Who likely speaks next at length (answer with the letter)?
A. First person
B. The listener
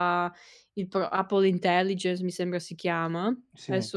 A